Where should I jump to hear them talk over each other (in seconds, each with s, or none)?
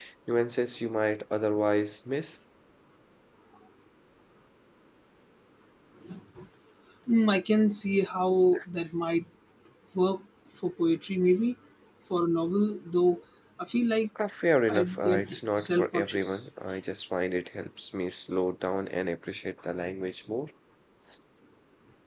14.7 s